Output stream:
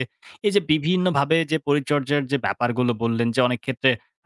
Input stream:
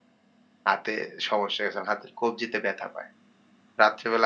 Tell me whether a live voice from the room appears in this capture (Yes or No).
Yes